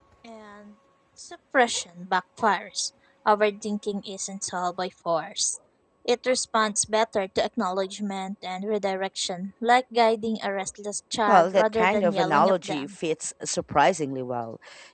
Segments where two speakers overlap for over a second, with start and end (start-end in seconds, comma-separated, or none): 11.3-13.0